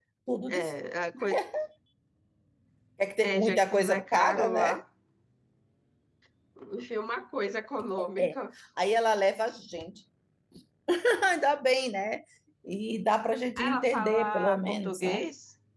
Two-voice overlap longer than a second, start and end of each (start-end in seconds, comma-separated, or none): 3.2-4.8, 13.6-15.3